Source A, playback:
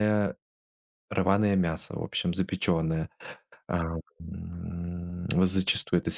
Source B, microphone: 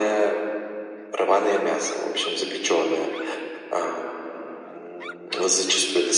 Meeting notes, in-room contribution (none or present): none